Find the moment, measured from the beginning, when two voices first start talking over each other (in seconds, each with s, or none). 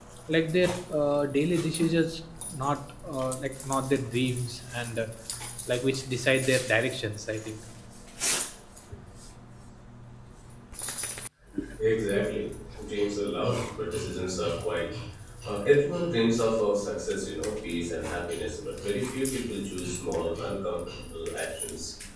none